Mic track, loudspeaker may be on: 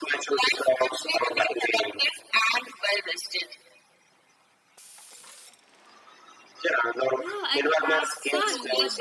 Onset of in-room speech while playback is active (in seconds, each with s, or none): 7.2 s